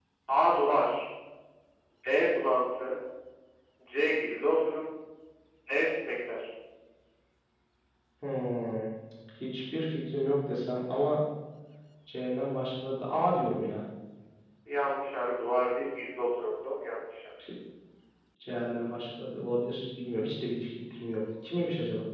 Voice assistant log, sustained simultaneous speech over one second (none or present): none